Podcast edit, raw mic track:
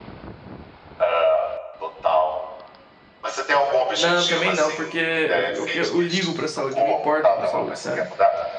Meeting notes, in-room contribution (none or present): present